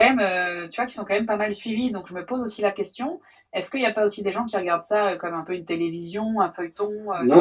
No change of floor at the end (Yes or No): No